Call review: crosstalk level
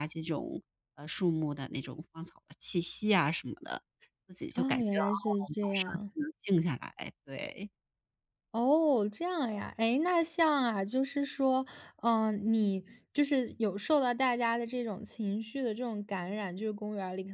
present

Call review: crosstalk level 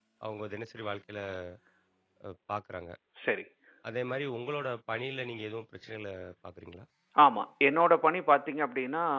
none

